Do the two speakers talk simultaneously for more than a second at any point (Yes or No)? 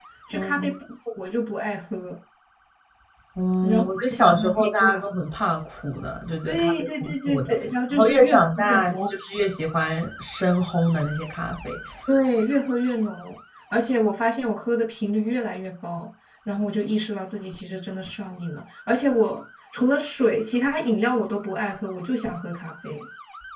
Yes